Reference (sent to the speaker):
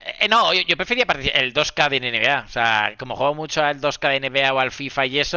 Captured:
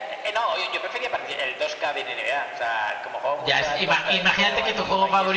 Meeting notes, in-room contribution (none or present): present